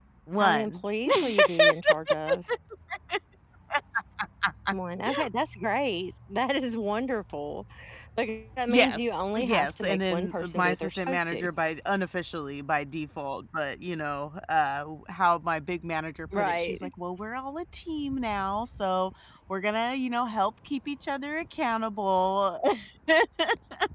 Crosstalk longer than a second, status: present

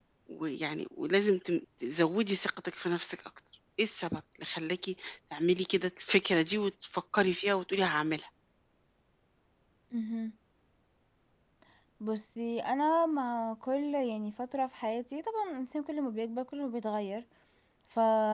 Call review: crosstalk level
none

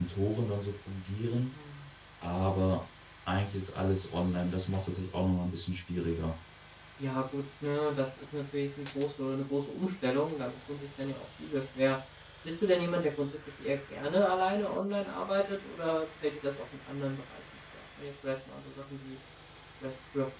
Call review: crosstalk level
none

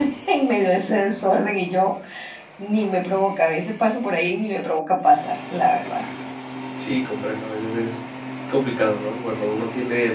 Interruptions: none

